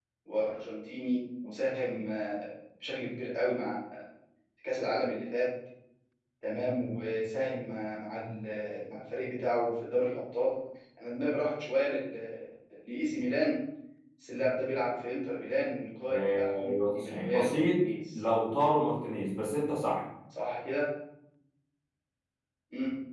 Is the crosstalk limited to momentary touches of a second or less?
No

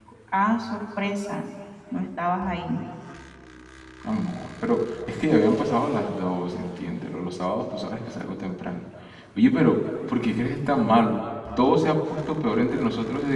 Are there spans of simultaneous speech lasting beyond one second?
No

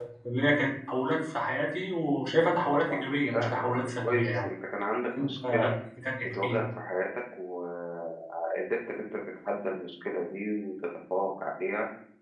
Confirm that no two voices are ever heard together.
No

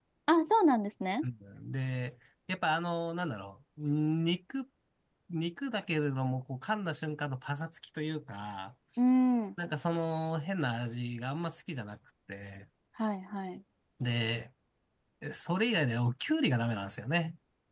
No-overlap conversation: Yes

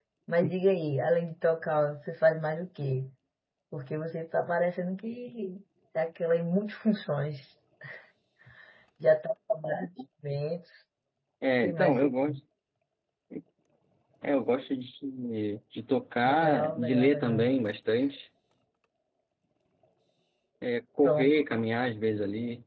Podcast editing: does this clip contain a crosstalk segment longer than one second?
Yes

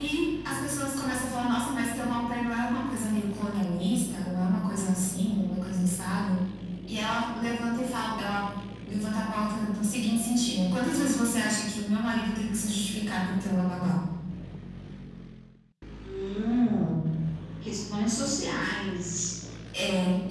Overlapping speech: No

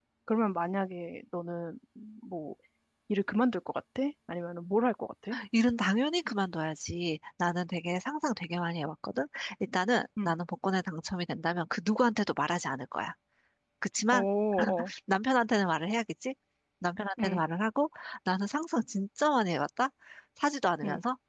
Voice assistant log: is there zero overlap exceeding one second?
Yes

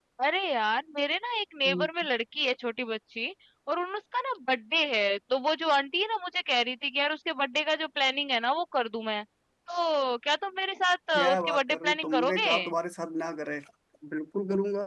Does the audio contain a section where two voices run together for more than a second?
Yes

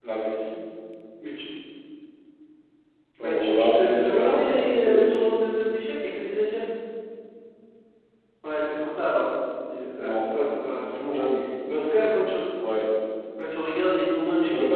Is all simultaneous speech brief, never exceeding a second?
No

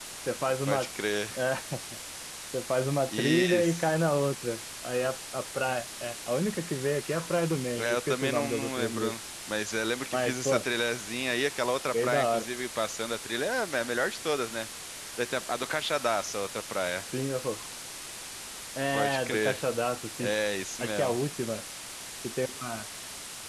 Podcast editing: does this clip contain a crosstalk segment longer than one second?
Yes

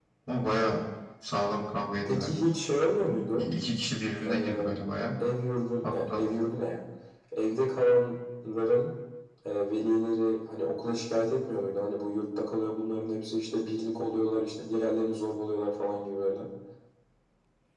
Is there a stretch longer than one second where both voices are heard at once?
No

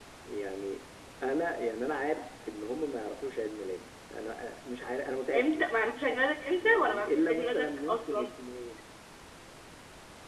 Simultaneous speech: Yes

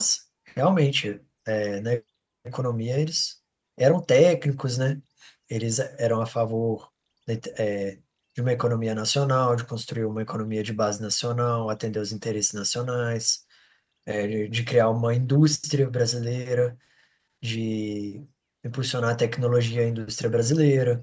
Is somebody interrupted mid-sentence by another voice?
No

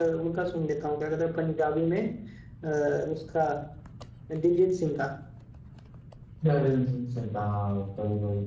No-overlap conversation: Yes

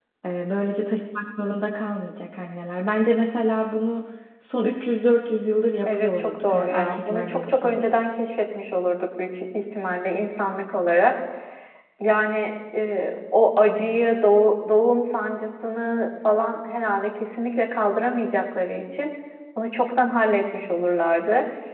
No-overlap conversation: No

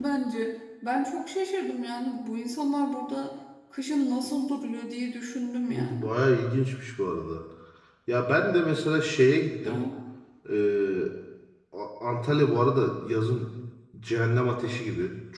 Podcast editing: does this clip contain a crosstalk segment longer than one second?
No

